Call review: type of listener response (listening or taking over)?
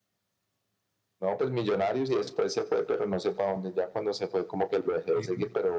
listening